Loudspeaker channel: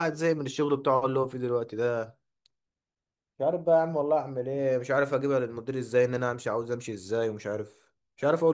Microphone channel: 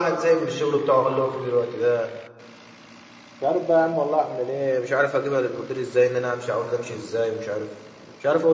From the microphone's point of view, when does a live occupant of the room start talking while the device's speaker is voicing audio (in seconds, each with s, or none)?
none